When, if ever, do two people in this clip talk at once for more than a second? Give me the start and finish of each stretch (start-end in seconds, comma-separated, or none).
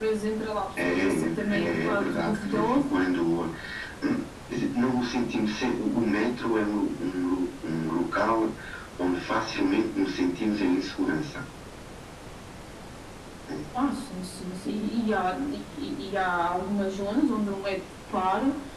0.8-2.9